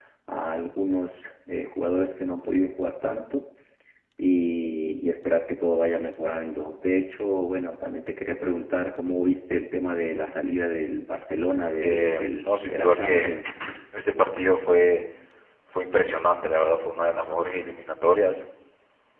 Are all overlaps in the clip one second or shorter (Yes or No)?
No